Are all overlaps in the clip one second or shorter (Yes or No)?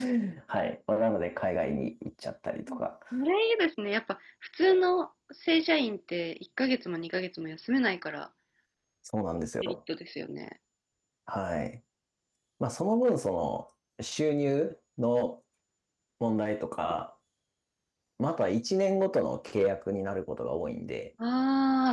Yes